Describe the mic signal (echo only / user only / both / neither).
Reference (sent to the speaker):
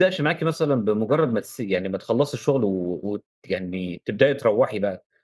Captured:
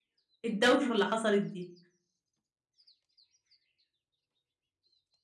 user only